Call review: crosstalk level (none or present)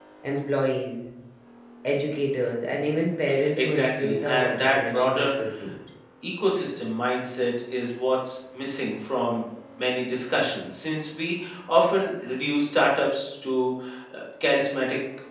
present